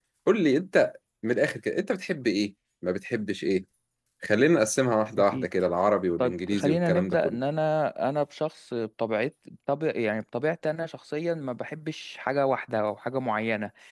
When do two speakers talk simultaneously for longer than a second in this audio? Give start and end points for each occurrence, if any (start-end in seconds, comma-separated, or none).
6.2-7.4